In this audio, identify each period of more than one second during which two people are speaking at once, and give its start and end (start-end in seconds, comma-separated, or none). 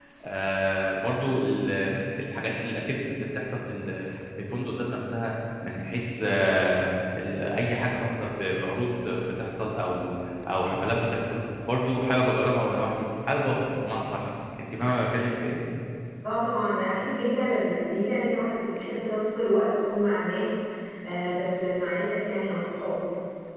none